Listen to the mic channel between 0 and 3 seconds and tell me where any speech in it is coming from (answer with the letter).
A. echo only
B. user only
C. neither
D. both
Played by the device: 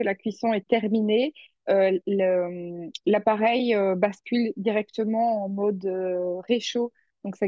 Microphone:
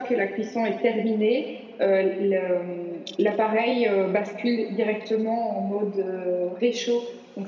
A